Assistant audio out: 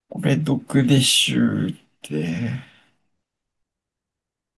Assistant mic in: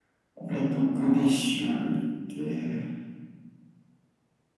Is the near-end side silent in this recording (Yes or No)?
Yes